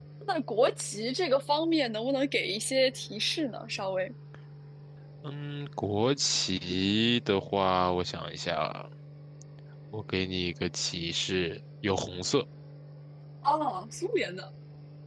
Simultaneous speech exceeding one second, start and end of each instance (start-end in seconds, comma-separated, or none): none